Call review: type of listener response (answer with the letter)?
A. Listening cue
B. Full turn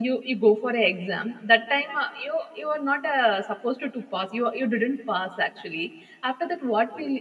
A